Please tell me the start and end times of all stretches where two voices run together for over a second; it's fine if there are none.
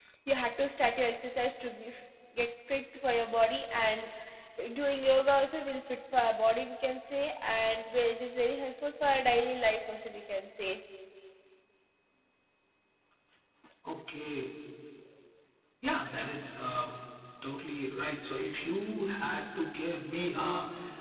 none

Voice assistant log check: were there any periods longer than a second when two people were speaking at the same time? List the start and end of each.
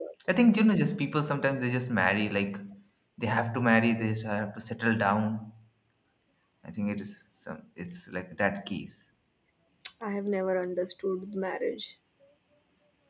none

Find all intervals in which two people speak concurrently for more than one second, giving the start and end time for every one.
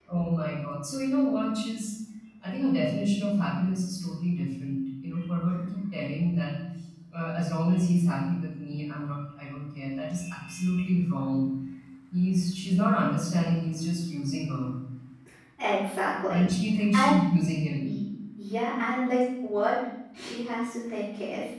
none

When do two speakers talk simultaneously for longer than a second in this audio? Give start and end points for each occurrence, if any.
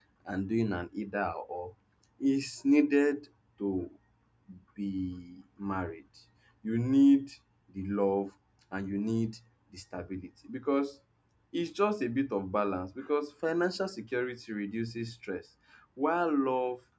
none

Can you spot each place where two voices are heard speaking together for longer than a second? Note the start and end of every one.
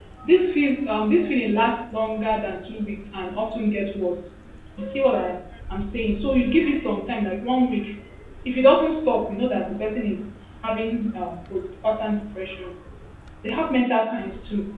none

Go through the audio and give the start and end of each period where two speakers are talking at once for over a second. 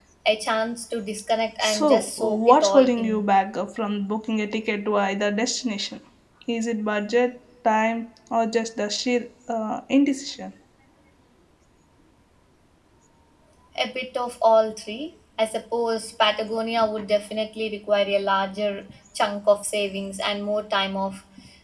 1.6-3.2

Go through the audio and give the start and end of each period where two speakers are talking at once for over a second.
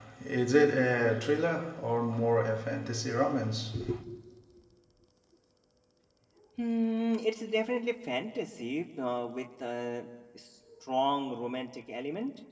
none

